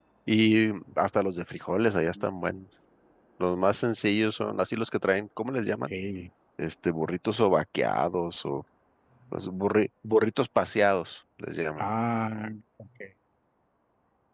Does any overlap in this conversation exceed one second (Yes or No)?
No